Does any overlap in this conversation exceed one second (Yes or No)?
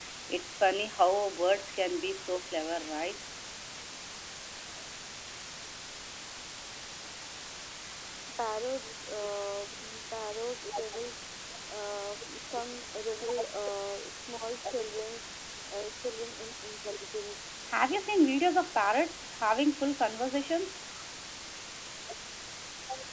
No